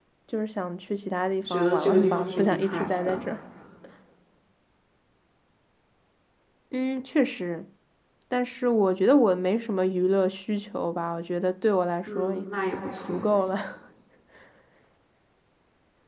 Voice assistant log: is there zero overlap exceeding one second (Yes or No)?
No